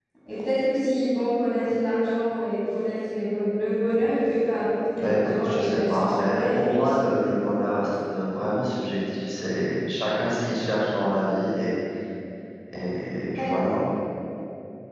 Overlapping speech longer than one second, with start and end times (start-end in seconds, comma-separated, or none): 5.0-7.0